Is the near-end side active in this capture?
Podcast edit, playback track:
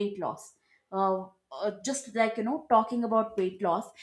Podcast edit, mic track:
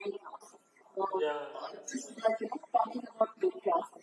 Yes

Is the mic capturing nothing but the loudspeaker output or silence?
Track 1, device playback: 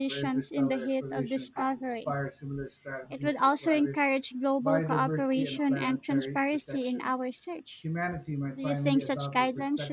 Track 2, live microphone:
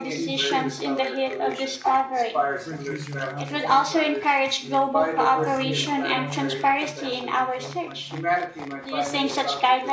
No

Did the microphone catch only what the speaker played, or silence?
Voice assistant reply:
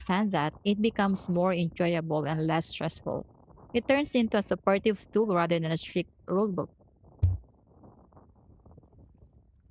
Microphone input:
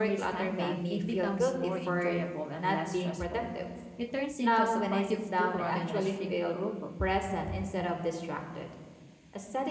No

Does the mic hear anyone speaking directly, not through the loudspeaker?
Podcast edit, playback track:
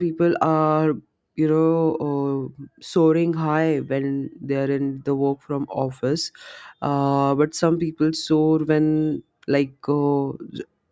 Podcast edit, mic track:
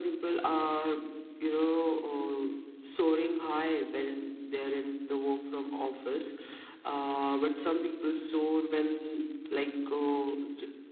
No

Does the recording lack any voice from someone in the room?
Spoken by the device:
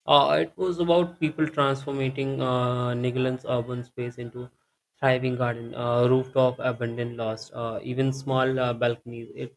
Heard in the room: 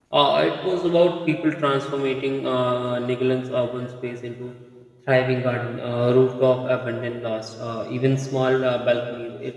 Yes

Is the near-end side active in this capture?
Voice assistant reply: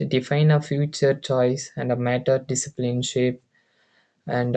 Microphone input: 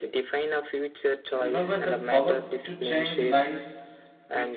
Yes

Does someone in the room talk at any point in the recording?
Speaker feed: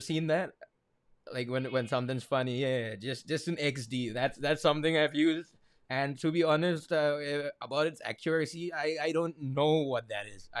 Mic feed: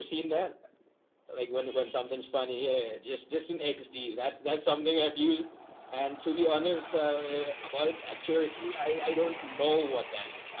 No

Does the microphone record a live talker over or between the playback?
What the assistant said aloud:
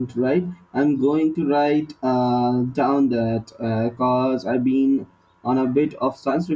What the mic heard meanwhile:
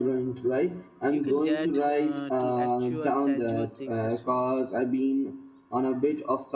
Yes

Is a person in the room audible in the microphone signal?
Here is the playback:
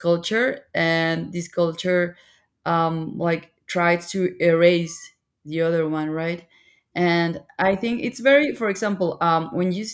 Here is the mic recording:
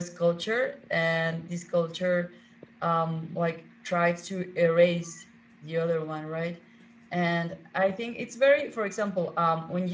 No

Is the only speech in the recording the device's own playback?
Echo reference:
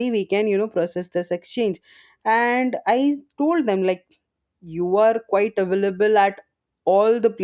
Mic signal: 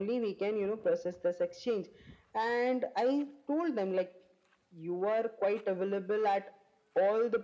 Yes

